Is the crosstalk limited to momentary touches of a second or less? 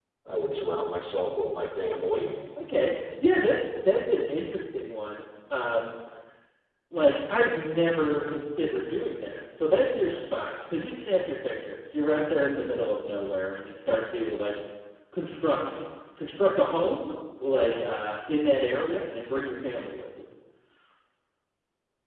Yes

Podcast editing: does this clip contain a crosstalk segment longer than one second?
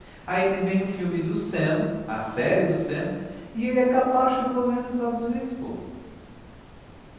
No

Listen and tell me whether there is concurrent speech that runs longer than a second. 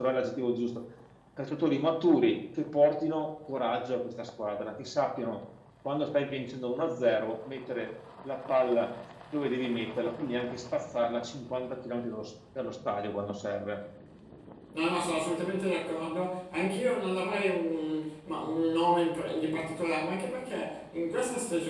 No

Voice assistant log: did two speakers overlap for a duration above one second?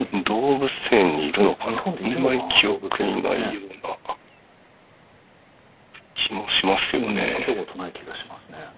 Yes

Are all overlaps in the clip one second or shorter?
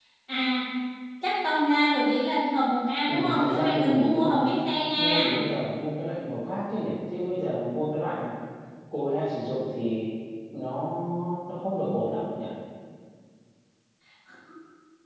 No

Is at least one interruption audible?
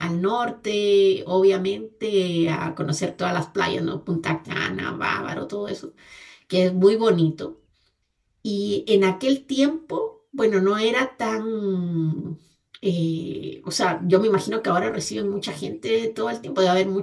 No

